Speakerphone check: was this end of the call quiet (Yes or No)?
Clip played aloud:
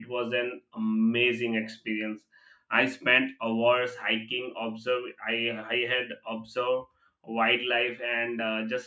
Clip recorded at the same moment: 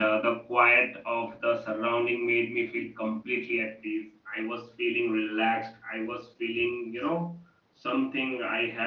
No